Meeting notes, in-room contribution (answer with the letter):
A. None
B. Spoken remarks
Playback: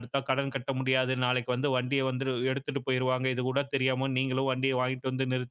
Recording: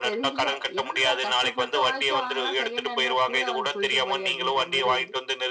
B